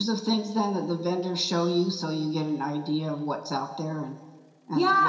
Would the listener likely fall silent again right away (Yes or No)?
No